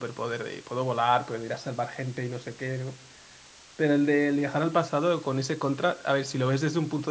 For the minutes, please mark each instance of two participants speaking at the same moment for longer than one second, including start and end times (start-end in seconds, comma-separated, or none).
none